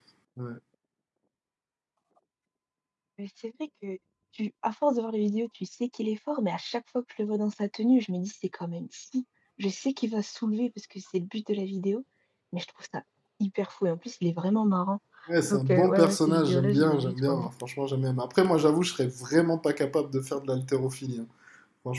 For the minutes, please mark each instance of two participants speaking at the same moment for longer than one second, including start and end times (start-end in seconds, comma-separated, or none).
15.5-17.5